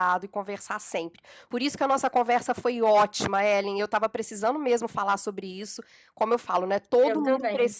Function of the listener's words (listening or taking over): listening